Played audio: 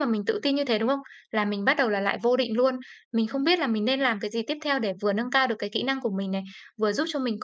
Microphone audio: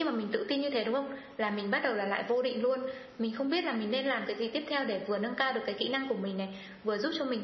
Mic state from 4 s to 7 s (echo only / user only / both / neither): echo only